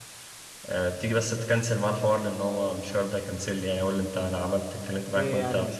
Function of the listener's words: taking over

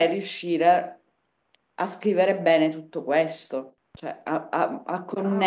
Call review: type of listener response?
taking over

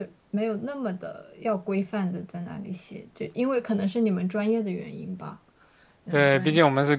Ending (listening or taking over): taking over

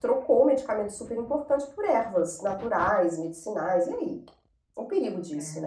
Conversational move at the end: taking over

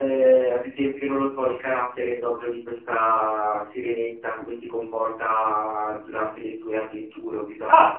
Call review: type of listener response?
listening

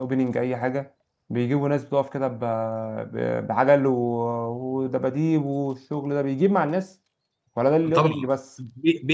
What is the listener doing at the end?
taking over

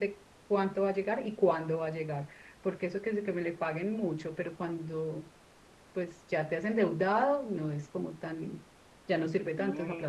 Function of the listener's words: taking over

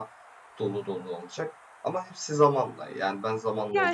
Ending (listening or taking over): taking over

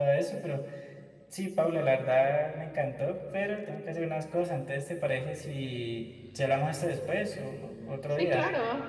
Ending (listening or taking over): taking over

